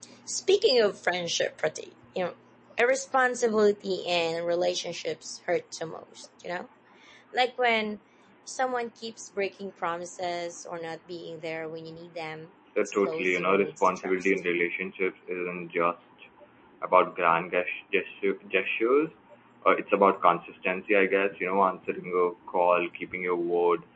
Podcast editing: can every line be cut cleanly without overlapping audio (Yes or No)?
No